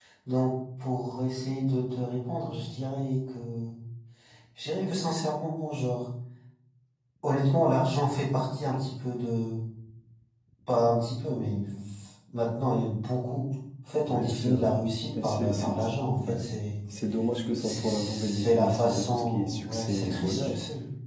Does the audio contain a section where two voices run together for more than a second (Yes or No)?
Yes